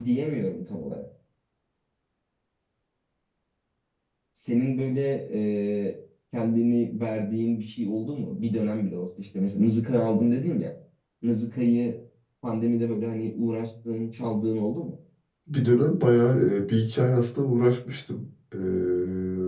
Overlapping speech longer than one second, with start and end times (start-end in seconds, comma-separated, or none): none